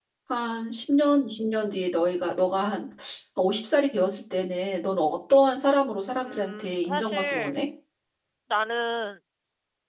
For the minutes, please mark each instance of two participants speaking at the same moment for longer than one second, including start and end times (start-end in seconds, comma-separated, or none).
6.2-7.5